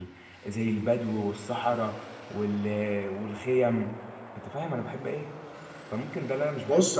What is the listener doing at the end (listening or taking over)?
taking over